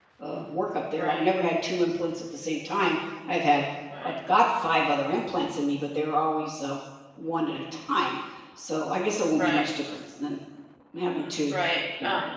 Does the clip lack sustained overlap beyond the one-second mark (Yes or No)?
Yes